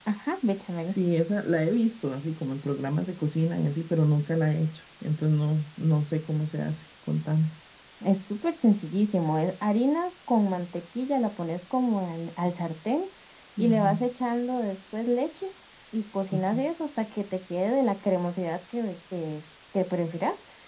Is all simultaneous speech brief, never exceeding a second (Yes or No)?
Yes